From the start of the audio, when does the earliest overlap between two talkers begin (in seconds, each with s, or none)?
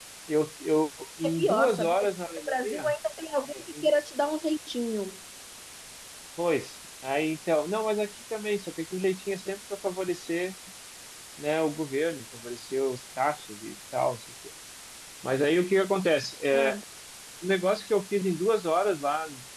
1.2 s